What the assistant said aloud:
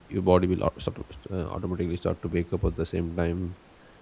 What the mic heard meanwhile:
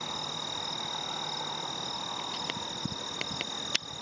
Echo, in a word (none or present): none